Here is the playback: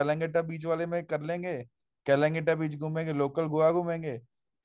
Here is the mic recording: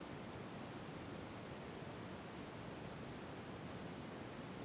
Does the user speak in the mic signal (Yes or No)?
No